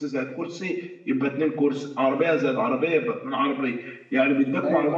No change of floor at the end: Yes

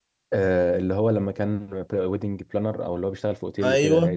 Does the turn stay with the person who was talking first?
No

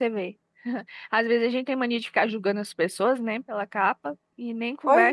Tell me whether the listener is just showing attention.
Yes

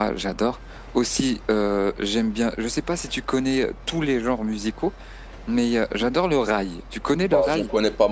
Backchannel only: No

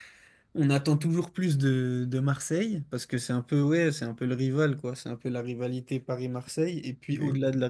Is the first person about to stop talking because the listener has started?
No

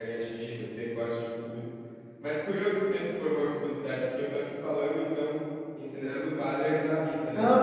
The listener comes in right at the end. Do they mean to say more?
Yes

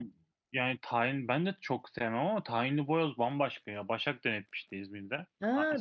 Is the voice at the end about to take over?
Yes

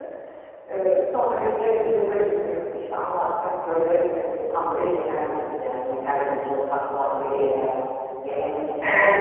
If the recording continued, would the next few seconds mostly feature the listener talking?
Yes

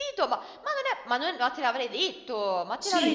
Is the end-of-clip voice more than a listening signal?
Yes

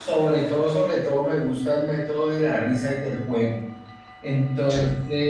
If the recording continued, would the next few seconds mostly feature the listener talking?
No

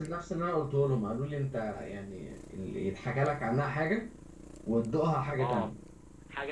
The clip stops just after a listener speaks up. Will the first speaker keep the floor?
No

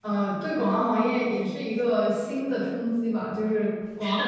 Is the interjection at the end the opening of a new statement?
No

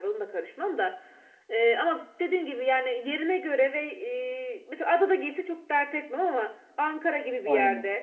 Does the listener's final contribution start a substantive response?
No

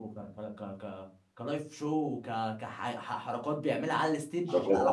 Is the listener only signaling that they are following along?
No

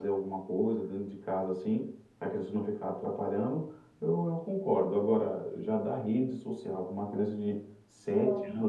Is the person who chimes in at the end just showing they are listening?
Yes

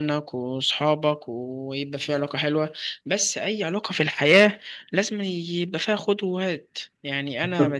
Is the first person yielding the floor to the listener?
No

